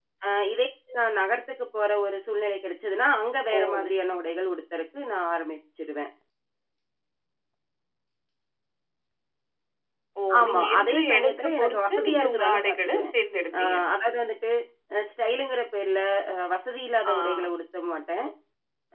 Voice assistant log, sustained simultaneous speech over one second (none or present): present